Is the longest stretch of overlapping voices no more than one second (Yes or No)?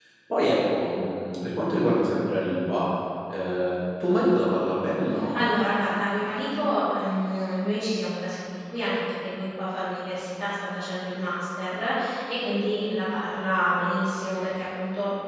Yes